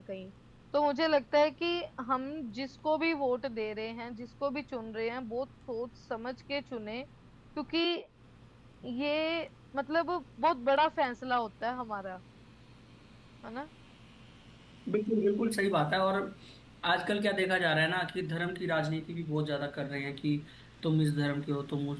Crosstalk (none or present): none